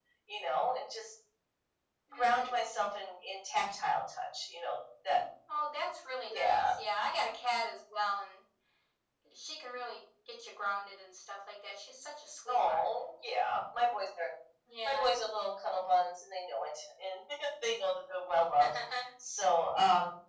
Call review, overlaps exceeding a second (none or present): none